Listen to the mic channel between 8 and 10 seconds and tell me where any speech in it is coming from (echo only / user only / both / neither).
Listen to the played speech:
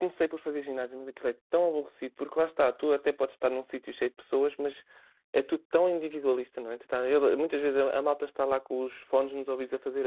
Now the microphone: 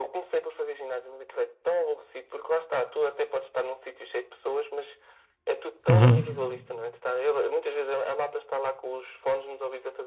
echo only